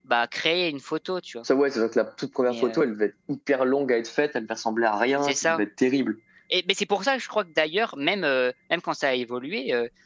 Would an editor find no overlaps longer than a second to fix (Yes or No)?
Yes